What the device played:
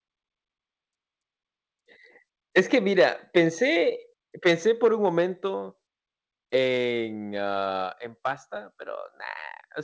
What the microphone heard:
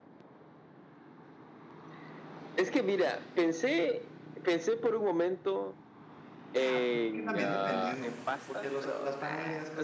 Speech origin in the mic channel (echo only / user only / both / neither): both